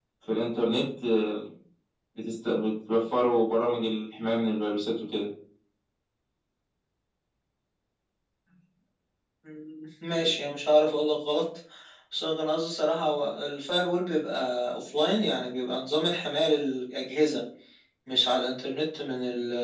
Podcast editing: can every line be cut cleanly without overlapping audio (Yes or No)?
Yes